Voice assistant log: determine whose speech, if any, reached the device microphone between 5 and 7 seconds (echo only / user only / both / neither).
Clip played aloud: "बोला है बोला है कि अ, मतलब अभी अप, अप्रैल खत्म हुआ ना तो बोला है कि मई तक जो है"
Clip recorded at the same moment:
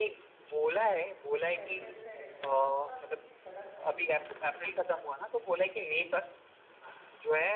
echo only